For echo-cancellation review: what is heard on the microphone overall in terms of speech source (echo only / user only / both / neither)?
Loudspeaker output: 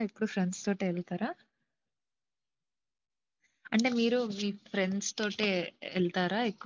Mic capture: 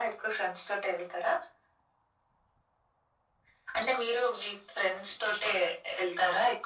echo only